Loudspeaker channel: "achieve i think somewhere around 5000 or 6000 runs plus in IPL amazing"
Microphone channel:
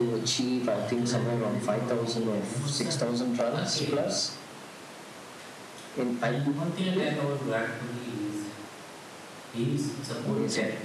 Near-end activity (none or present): present